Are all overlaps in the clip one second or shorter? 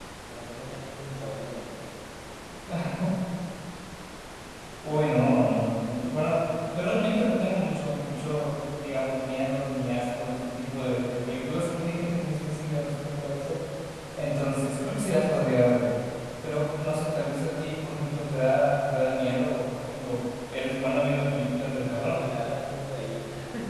Yes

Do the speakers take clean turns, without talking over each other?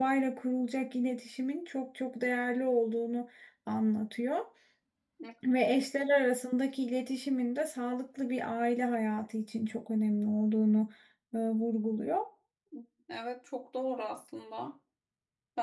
Yes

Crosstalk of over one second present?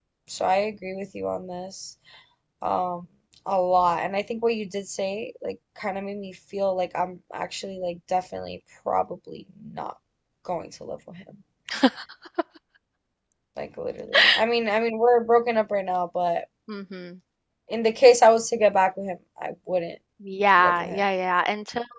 No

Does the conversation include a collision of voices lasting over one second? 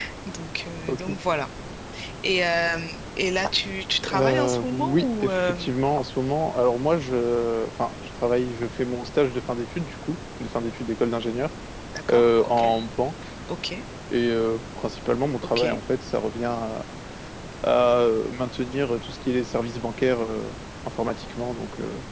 Yes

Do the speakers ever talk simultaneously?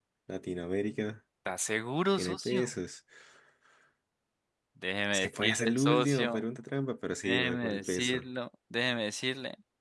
Yes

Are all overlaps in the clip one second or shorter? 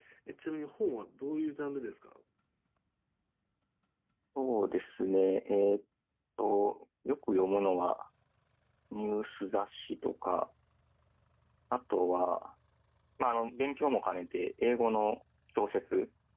Yes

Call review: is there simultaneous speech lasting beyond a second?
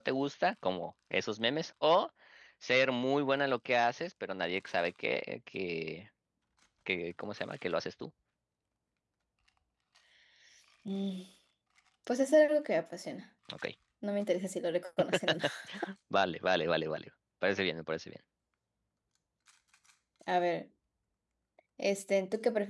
No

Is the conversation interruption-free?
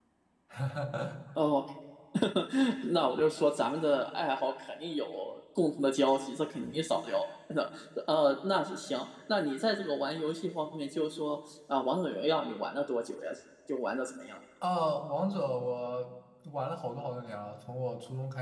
Yes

